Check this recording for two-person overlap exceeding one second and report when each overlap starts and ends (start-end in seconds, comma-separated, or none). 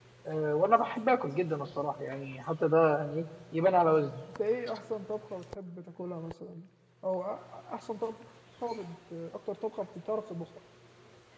none